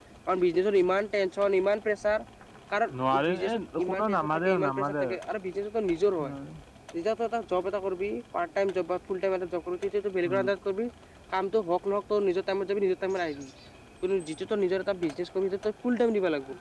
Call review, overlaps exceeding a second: present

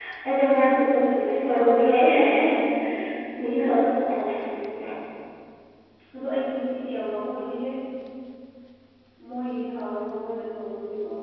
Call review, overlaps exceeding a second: present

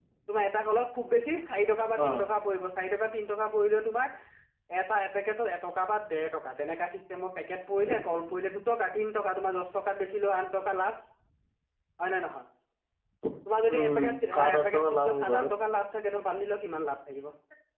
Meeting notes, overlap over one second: present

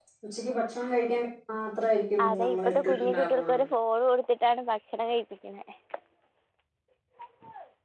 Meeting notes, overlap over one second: present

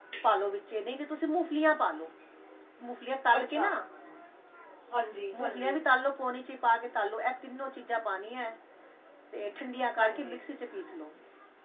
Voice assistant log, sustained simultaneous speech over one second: none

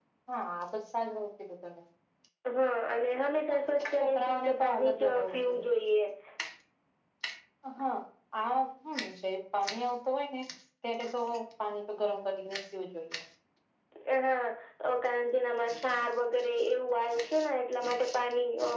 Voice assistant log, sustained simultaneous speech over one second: present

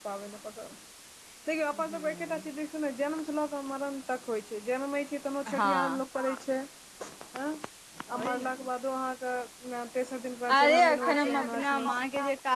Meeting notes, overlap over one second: present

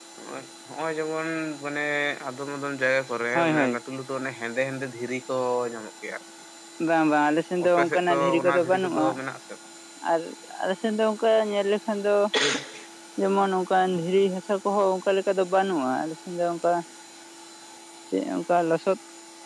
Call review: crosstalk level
present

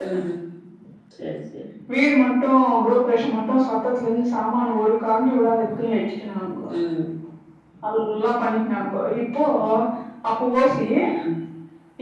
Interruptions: none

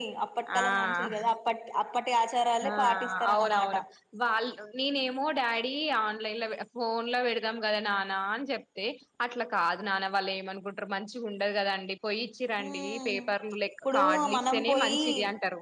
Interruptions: present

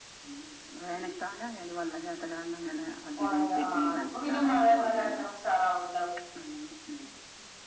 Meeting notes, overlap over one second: present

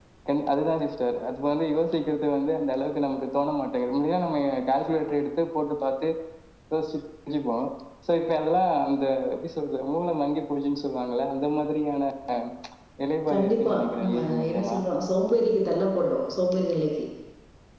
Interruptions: present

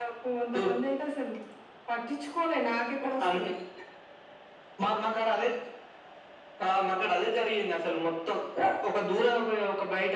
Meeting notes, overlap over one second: none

